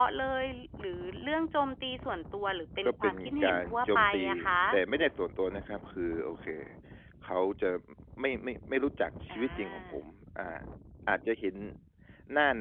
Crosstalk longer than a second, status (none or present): present